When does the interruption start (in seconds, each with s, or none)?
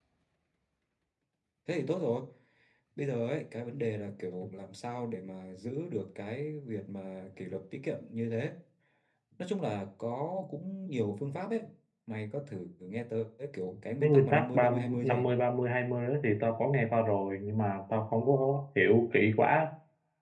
14.0 s